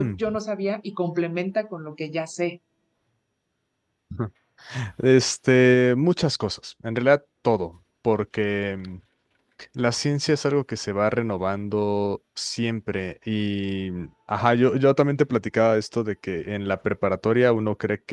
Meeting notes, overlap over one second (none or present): none